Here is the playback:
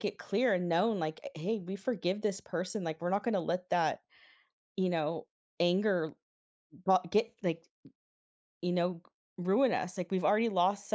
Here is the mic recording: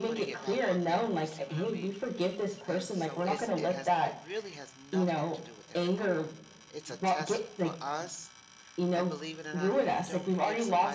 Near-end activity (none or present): present